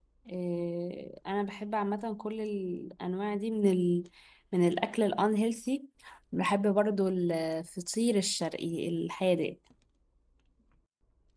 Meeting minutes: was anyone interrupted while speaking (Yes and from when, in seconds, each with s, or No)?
No